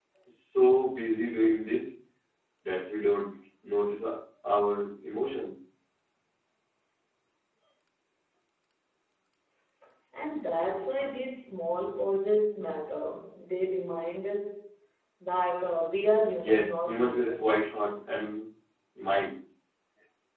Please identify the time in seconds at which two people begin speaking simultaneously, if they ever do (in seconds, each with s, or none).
16.4 s